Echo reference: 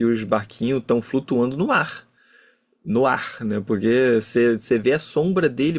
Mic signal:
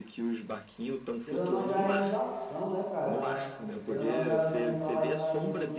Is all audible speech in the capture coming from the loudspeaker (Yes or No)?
No